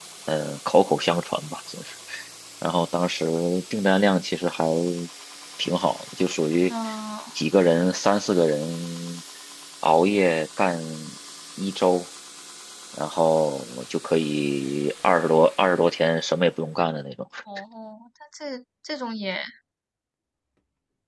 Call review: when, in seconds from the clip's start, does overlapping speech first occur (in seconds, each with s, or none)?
none